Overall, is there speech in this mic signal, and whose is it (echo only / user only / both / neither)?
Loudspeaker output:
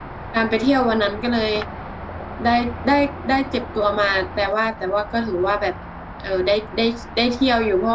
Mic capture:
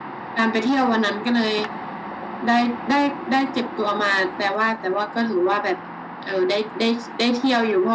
echo only